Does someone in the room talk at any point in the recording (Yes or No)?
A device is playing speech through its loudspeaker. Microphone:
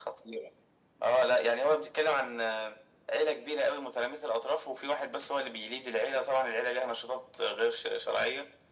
No